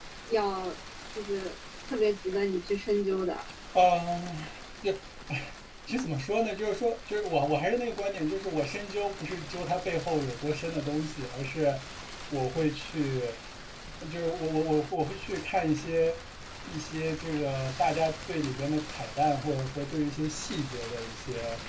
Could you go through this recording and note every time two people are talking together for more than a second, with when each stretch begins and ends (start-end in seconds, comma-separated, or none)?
none